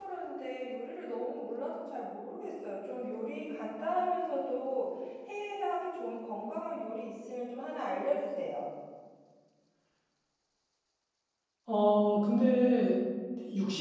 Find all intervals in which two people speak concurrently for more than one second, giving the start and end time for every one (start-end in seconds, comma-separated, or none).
none